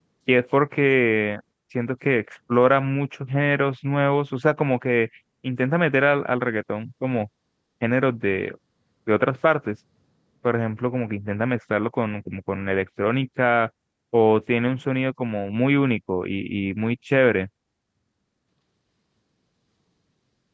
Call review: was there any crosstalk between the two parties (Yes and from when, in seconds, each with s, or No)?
No